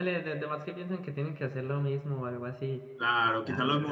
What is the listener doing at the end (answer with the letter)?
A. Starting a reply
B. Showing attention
A